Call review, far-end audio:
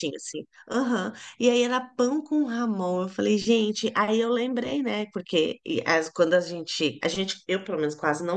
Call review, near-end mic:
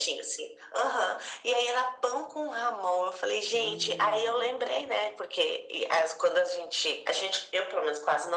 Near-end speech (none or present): present